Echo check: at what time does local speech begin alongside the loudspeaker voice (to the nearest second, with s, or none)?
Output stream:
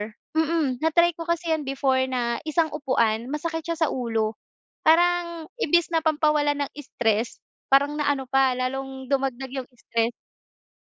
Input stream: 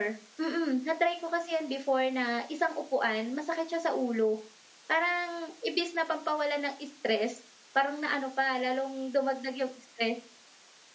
none